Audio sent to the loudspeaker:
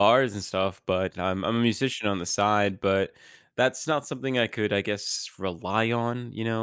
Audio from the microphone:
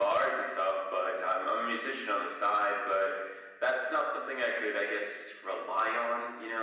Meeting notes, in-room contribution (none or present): none